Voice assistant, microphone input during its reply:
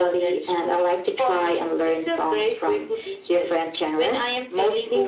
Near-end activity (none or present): none